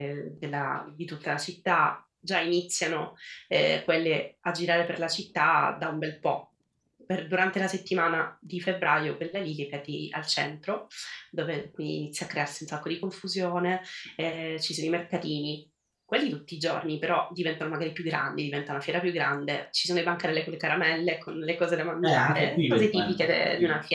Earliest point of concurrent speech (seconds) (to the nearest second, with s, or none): 22 s